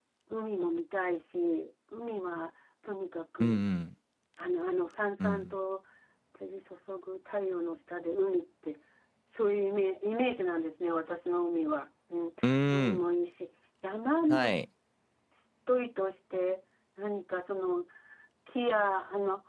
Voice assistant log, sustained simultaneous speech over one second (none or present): none